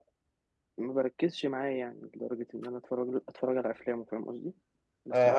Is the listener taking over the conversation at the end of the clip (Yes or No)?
Yes